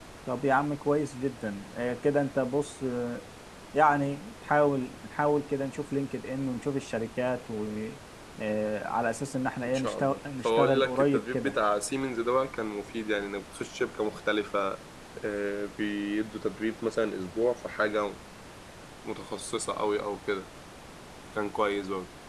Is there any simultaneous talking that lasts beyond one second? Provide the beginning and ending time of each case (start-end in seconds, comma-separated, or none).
9.6-11.6